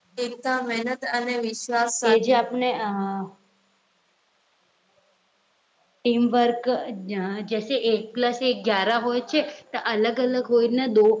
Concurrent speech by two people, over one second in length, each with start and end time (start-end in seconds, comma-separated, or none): none